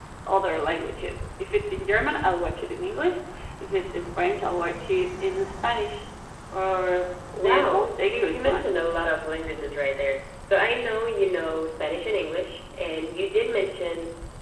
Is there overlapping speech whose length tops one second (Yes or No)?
Yes